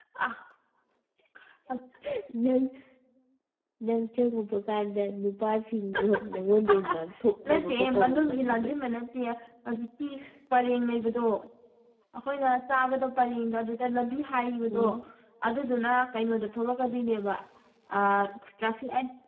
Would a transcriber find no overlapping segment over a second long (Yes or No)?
No